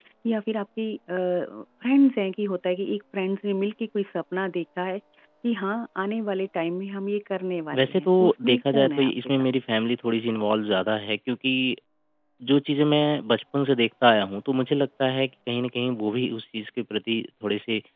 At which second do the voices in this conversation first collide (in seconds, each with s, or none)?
7.7 s